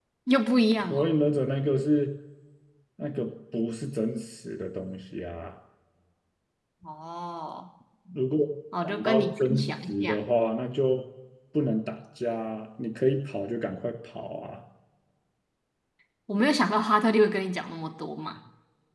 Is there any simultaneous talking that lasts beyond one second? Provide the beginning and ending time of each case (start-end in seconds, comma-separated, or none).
8.8-10.2